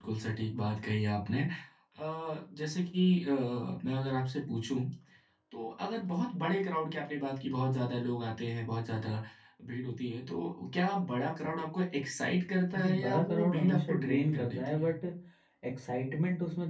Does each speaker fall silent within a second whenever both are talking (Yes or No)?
No